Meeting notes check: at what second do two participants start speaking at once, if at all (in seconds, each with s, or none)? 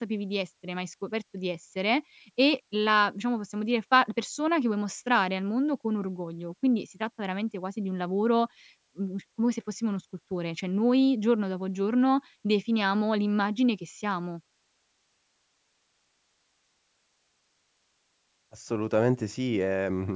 none